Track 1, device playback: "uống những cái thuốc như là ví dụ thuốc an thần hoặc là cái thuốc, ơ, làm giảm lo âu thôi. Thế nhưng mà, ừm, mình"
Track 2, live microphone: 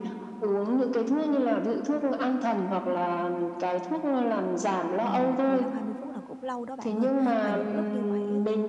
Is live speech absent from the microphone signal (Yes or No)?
No